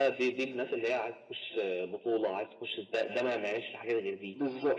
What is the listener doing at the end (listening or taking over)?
taking over